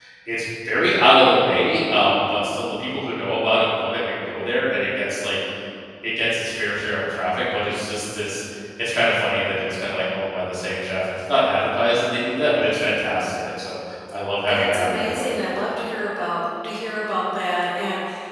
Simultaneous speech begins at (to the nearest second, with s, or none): 14 s